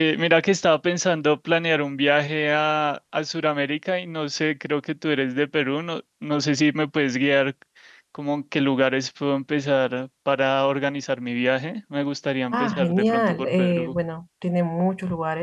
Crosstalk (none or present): present